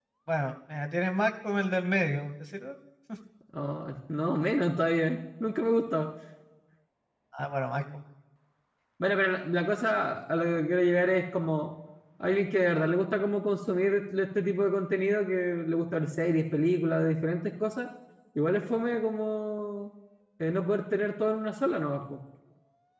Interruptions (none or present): none